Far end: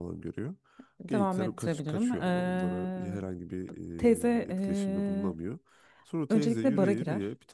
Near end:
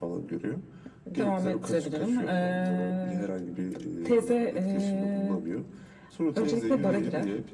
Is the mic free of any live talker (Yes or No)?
Yes